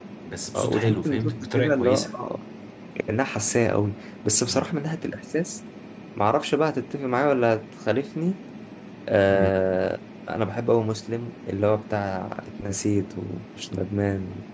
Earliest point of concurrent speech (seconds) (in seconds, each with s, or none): 0.6 s